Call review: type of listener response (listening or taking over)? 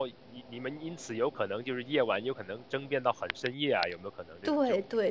taking over